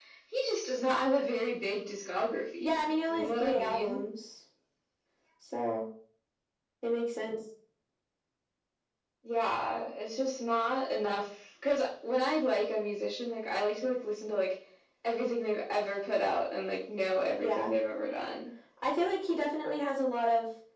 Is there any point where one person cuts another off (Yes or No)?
Yes